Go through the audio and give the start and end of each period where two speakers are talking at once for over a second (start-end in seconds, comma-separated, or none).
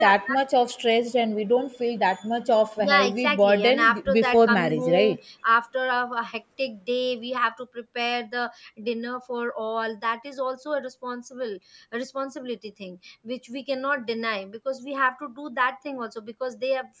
2.8-5.2